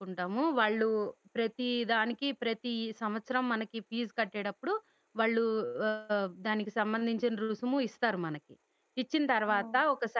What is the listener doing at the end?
listening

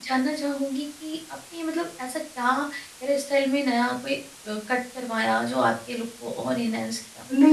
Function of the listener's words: taking over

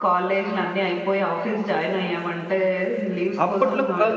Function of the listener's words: taking over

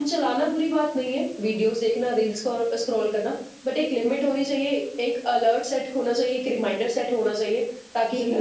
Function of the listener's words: taking over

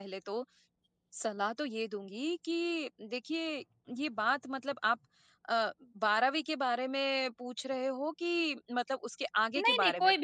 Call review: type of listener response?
taking over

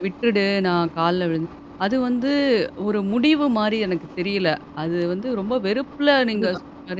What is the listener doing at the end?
listening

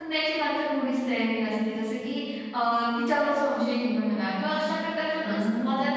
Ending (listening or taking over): listening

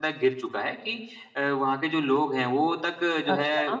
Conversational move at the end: listening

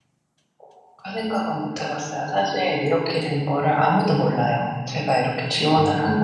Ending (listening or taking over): listening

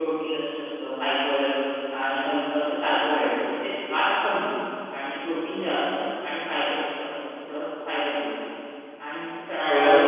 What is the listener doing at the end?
listening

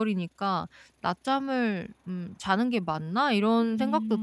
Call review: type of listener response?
taking over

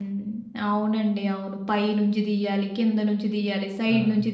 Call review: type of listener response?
listening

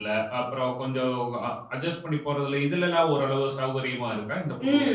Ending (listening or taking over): taking over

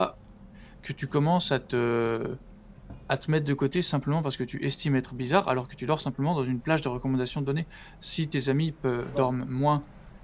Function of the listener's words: listening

